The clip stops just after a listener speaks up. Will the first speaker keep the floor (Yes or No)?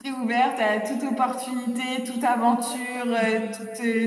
Yes